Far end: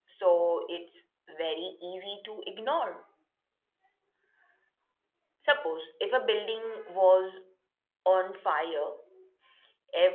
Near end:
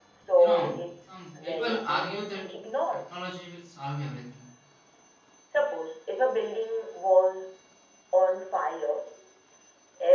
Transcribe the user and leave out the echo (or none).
you know, some people argue that technology will solve everything.